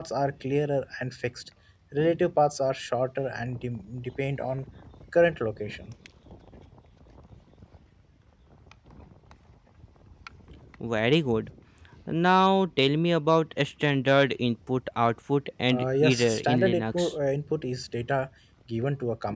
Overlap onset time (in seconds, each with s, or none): 15.7 s